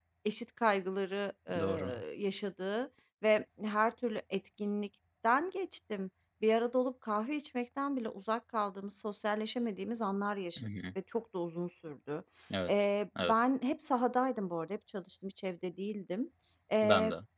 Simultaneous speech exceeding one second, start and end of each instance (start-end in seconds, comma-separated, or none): none